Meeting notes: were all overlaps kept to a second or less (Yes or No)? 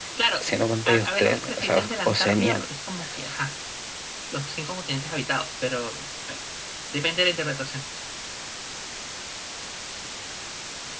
No